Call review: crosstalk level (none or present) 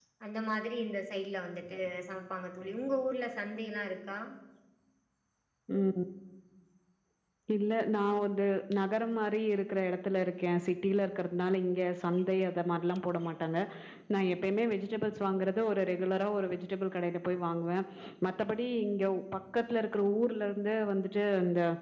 none